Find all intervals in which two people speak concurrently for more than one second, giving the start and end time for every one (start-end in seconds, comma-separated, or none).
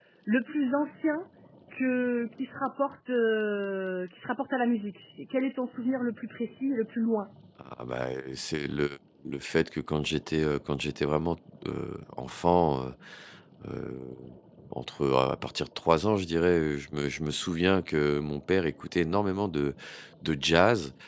none